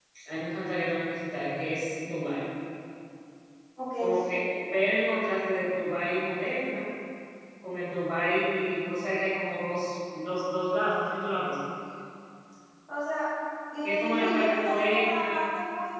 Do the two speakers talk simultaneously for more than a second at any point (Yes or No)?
Yes